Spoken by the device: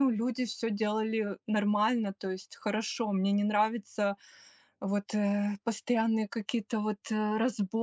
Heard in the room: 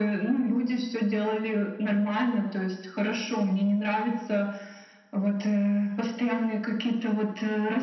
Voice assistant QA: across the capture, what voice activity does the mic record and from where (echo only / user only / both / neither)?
echo only